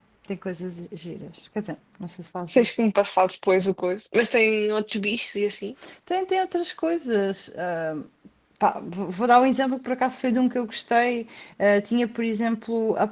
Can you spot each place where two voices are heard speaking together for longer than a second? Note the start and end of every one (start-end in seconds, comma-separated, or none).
none